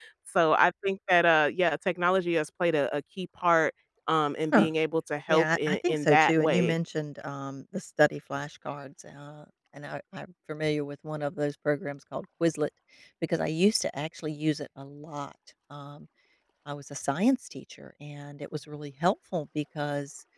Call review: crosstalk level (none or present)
present